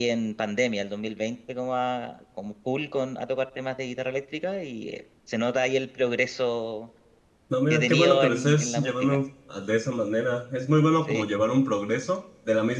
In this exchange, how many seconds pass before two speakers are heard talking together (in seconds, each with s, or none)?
7.7 s